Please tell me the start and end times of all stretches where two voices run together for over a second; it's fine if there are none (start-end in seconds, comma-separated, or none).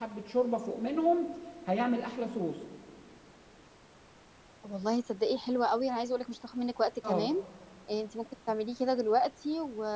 none